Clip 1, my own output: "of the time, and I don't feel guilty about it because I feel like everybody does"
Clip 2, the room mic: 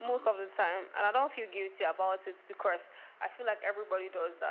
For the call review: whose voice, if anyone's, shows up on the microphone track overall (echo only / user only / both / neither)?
echo only